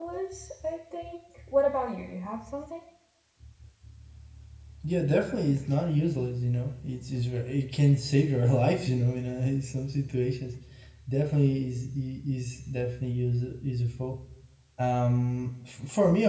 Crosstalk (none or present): none